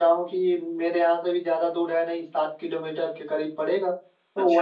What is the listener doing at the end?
listening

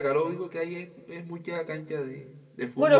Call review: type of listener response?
taking over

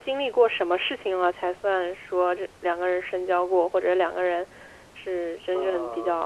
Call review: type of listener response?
taking over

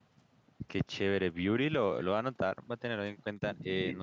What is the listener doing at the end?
listening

